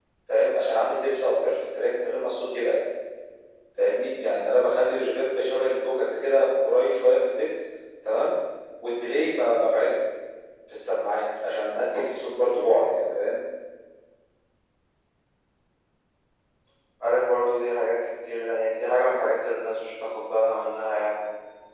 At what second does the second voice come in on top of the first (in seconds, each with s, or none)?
none